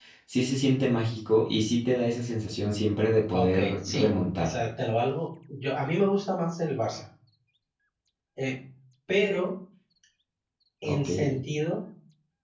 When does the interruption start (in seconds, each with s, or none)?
3.3 s